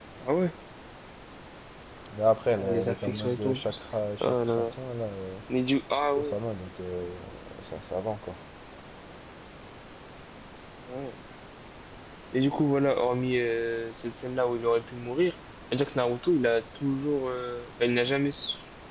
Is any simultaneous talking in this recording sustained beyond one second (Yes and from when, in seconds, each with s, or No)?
Yes, from 2.6 s